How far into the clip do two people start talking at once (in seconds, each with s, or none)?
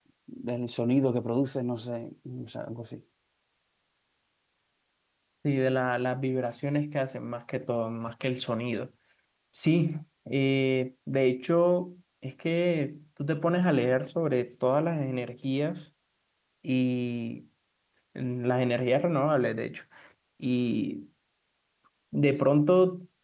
none